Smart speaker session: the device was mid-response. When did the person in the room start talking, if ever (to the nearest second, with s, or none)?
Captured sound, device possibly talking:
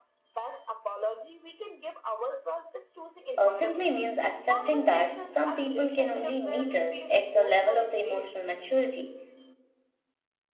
3 s